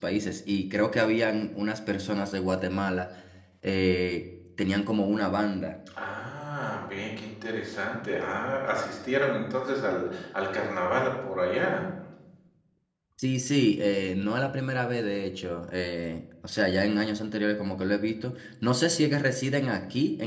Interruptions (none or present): none